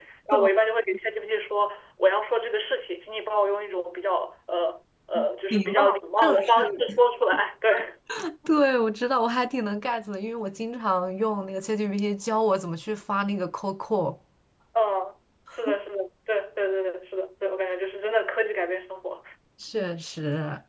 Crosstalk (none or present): present